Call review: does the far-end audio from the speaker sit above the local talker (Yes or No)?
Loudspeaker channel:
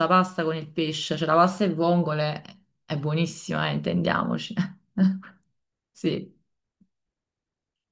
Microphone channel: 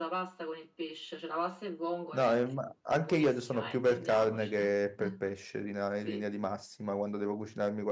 No